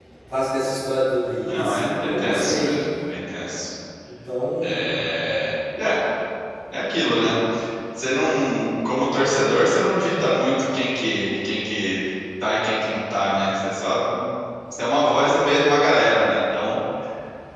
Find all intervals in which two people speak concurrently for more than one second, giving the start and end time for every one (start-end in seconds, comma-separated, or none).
1.5-2.7